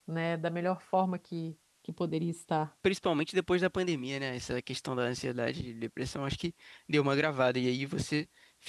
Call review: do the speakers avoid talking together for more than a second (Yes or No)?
Yes